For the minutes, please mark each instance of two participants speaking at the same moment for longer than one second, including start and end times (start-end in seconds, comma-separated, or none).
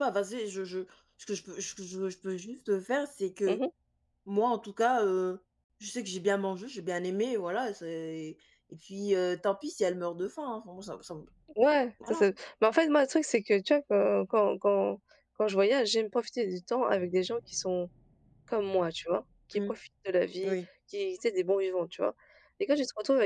none